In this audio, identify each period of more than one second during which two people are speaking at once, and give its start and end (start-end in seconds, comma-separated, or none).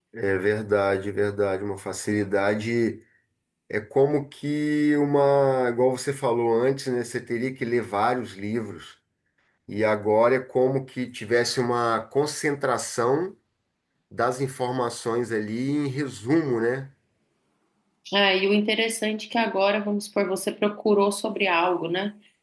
none